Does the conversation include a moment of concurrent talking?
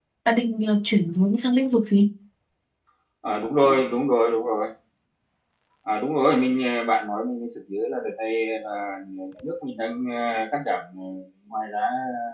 No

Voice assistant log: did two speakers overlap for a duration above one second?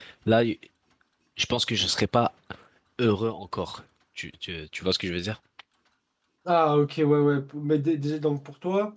No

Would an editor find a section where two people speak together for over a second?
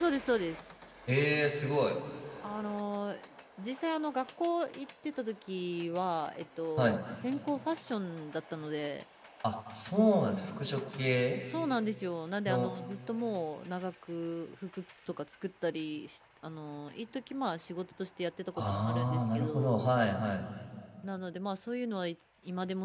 Yes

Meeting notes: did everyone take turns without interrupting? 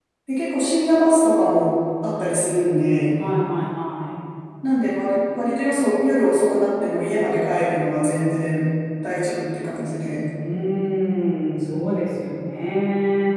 Yes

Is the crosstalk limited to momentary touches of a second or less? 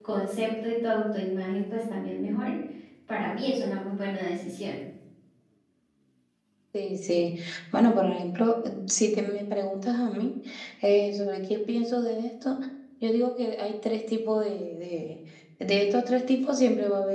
Yes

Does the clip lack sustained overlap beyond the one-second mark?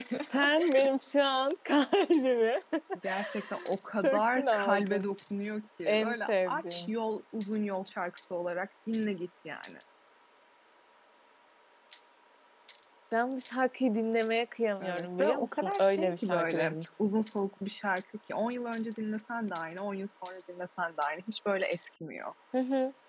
No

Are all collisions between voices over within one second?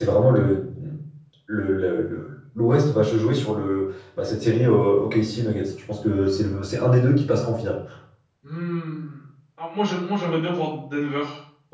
Yes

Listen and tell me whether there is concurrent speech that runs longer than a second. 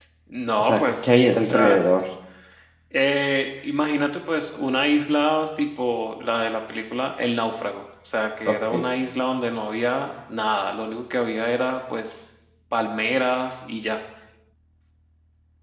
Yes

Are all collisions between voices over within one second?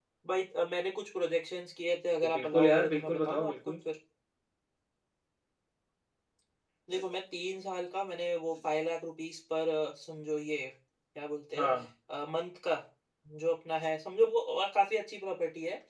No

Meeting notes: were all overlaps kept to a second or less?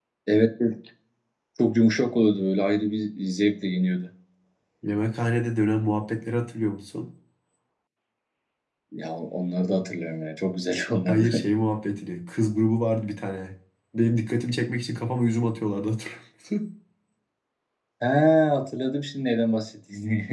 Yes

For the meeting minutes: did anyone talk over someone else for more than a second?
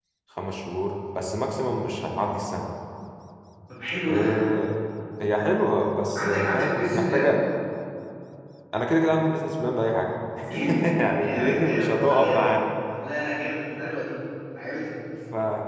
Yes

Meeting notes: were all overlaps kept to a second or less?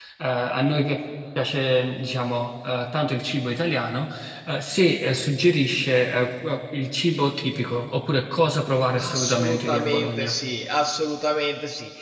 No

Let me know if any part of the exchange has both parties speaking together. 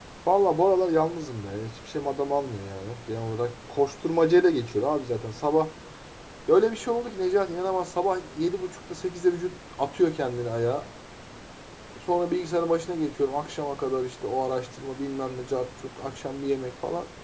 No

